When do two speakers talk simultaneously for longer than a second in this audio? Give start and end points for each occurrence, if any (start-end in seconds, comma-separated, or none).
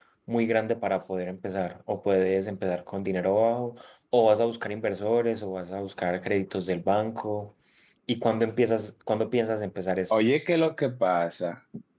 none